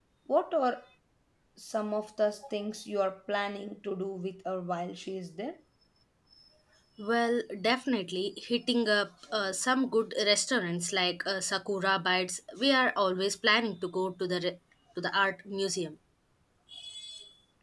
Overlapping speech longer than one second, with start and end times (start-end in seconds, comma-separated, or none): none